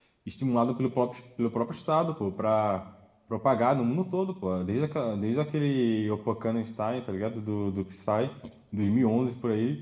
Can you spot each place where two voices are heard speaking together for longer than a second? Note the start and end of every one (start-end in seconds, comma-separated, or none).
none